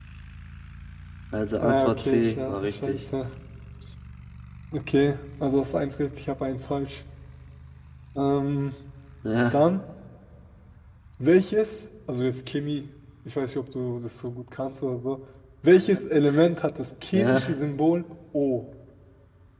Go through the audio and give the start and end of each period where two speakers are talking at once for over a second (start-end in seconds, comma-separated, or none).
1.6-3.0